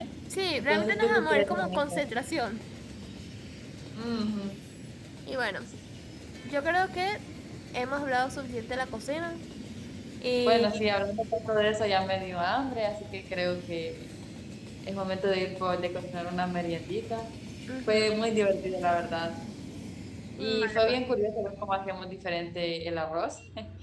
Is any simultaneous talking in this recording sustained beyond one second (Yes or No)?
Yes